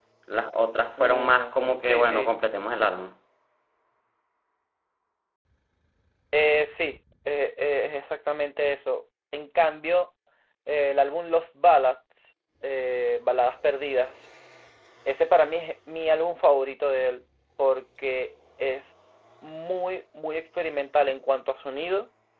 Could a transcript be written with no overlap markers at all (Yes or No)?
No